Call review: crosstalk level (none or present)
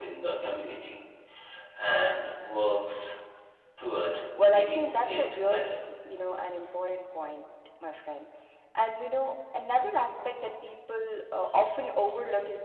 present